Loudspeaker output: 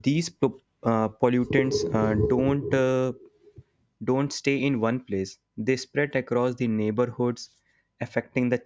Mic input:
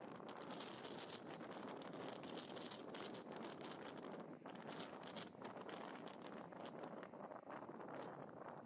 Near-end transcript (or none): none